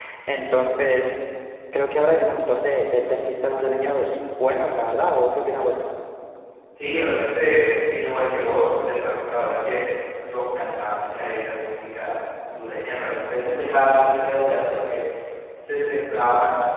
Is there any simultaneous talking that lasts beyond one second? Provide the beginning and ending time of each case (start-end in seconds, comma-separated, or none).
none